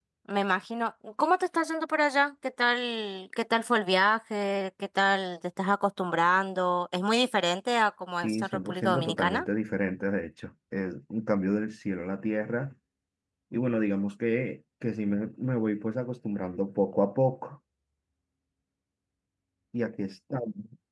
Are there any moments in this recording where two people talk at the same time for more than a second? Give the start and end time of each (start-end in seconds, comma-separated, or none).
8.2-9.5